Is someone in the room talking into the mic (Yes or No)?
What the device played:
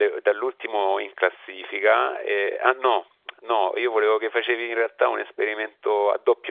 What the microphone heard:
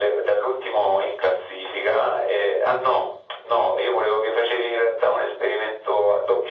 No